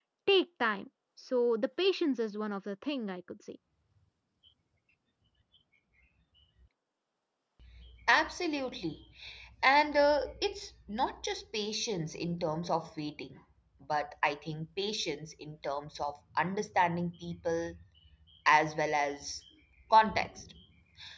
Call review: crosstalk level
none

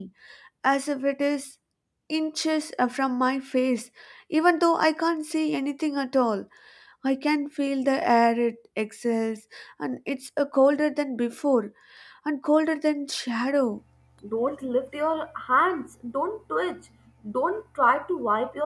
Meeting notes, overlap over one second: none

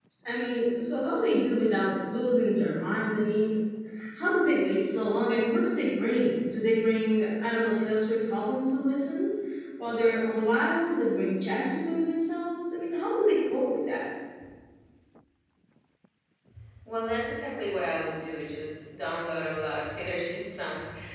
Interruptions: none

